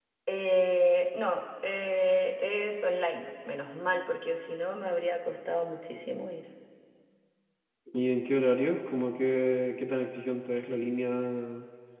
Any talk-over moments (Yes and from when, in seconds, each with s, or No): No